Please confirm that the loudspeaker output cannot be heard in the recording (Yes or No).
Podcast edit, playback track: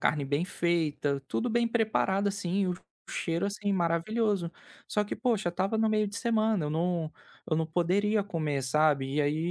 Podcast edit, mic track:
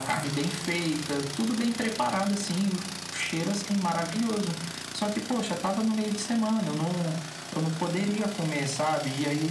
No